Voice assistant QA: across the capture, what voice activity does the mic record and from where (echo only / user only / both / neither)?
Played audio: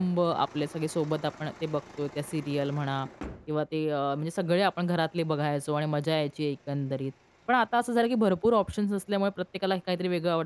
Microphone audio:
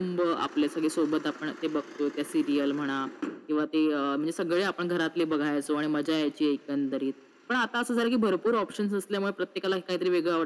echo only